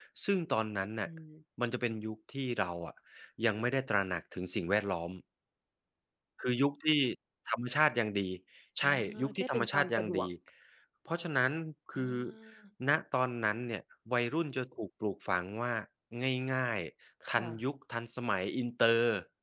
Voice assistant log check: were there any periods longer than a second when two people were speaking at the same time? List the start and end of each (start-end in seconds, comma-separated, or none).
8.8-10.3